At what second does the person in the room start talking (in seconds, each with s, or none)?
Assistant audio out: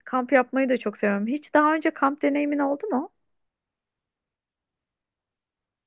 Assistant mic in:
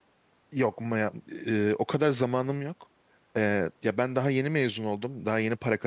0.5 s